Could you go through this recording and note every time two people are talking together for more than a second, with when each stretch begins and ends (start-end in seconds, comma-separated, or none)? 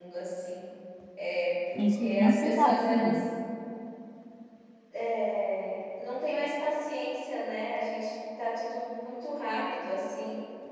1.8-3.2